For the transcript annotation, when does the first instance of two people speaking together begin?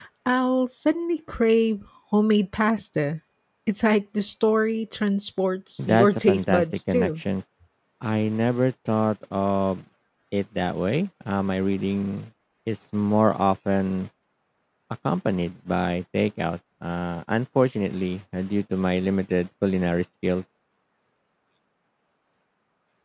5.8 s

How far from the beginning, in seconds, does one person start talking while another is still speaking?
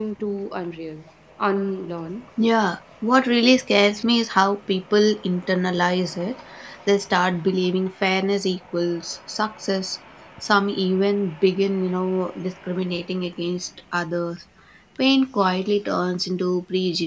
none

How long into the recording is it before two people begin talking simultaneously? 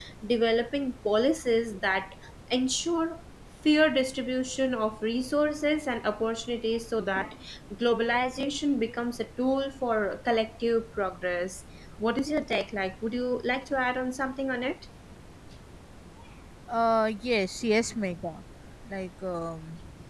none

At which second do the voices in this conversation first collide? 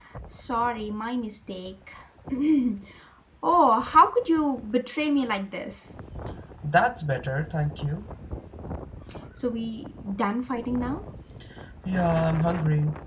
none

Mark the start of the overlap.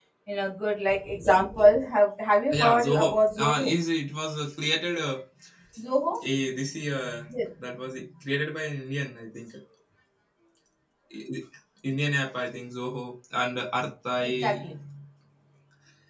2.5 s

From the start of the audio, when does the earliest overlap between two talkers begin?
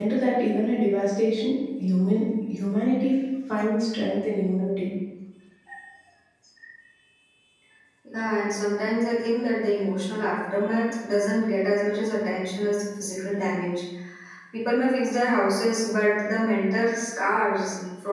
none

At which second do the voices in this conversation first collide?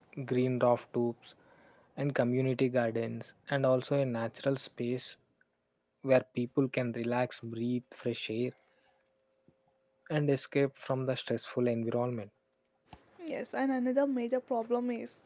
none

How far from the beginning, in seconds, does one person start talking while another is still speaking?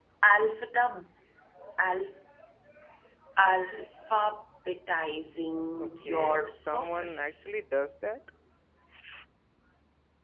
5.8 s

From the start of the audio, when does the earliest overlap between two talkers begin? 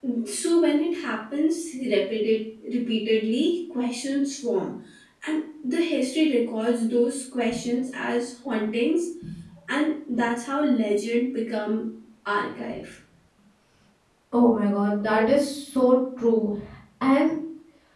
none

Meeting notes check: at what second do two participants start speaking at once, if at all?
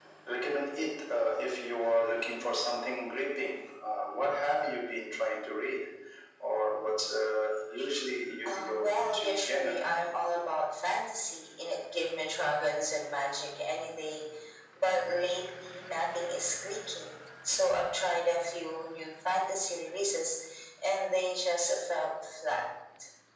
8.4 s

